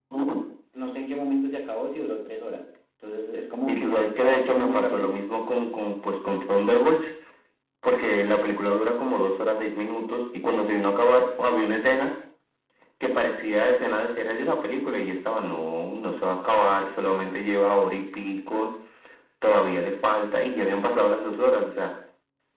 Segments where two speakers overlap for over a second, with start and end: 3.7-5.2

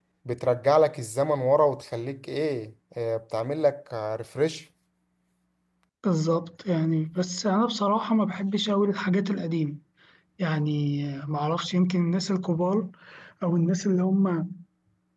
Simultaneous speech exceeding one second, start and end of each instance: none

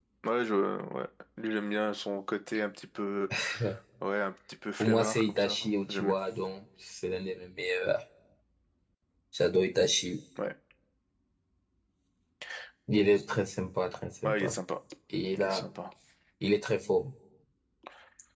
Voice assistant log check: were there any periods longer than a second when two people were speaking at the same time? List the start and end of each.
4.8-6.2

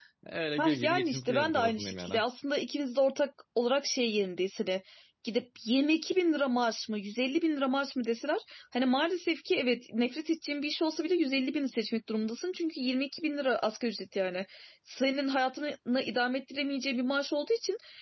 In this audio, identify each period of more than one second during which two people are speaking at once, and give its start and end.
0.6-2.2

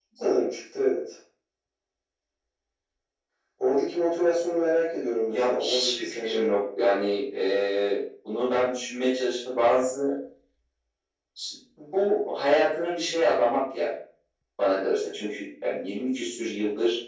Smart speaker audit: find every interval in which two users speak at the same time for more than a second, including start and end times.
5.3-6.5

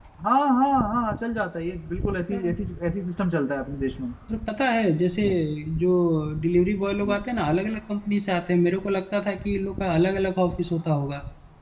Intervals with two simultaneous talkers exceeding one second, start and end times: none

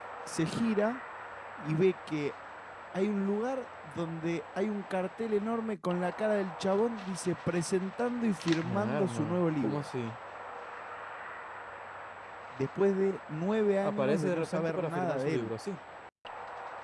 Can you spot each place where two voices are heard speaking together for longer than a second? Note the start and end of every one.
8.6-9.8, 13.9-15.5

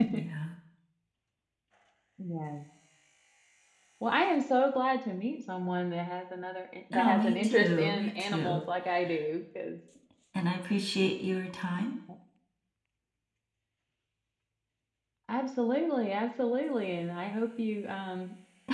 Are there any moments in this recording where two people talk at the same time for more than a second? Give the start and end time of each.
6.9-8.6

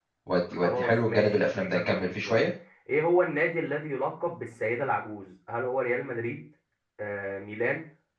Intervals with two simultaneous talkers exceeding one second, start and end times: 0.5-2.4

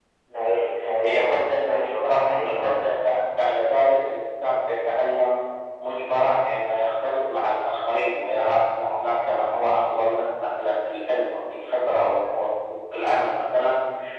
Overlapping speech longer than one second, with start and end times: 1.1-3.0

